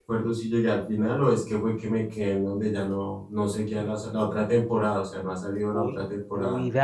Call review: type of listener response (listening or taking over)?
taking over